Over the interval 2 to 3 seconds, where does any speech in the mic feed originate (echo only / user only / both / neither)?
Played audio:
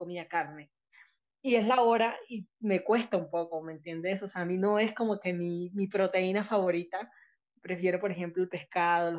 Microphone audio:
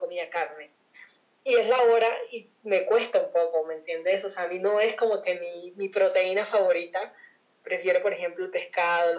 echo only